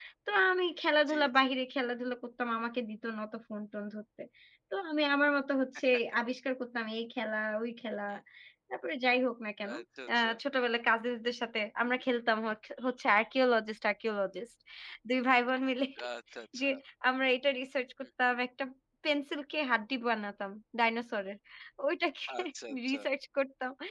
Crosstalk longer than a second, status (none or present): none